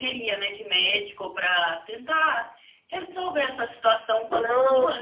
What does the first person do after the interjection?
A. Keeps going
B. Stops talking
B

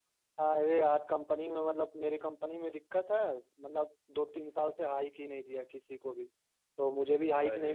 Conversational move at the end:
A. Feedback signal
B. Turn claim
A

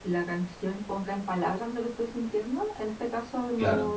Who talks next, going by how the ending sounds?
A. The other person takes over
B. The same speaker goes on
B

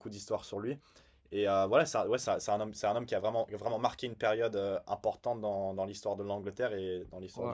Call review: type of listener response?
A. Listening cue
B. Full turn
B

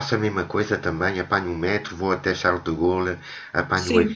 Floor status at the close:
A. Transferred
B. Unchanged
A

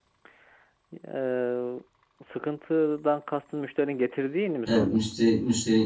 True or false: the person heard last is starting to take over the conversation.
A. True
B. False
A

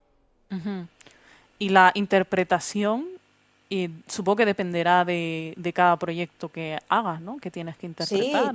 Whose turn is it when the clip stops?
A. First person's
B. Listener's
B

